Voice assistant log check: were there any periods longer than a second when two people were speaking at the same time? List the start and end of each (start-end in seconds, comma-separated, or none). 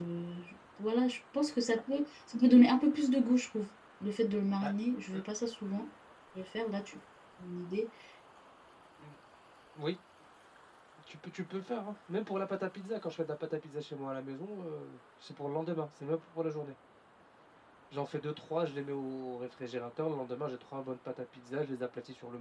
none